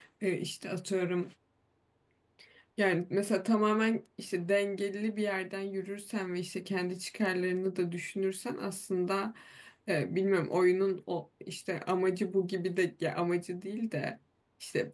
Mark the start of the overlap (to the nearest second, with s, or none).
none